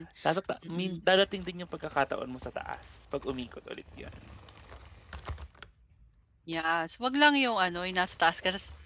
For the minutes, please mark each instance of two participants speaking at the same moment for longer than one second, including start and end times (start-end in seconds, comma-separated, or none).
none